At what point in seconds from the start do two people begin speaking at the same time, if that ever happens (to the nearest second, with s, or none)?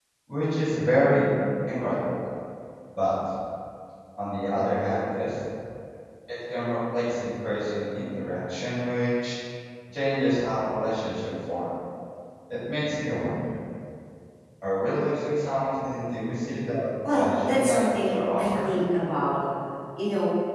17 s